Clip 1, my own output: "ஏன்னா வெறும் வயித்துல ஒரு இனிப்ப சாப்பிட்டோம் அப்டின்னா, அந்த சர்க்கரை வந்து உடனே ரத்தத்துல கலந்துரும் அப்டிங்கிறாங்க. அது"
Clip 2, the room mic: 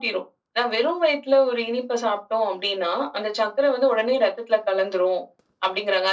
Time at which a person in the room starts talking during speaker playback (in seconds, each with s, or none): none